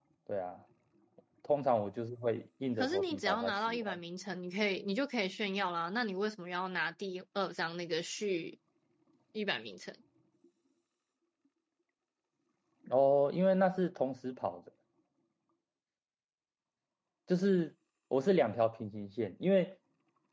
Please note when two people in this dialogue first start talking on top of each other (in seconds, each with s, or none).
2.8 s